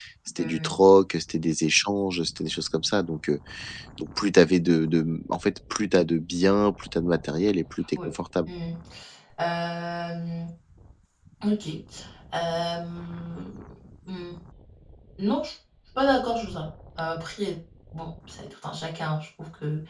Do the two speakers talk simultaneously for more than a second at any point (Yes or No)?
No